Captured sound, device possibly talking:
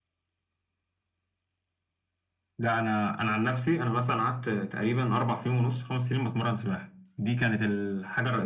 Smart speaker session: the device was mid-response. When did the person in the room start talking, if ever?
none

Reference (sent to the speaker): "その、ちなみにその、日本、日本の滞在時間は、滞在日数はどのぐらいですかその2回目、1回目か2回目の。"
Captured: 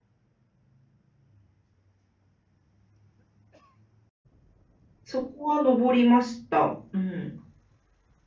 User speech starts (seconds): 5.0 s

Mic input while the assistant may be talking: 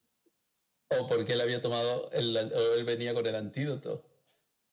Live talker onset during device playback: none

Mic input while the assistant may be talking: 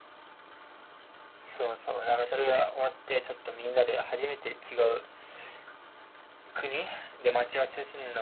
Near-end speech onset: none

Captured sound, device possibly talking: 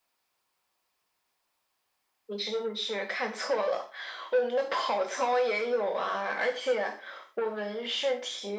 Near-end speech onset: none

